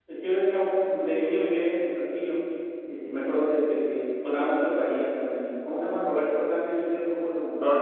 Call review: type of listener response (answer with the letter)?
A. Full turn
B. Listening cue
A